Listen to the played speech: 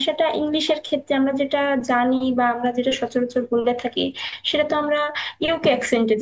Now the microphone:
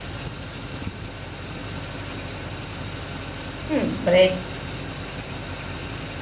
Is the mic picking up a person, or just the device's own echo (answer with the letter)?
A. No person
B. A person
B